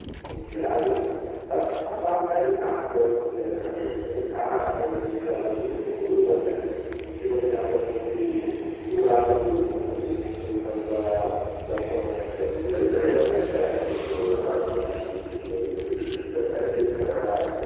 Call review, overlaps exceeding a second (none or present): present